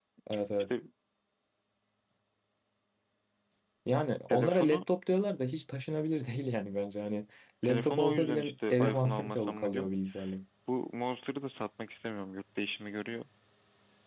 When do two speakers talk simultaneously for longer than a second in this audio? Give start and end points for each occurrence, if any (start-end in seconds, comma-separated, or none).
7.6-9.9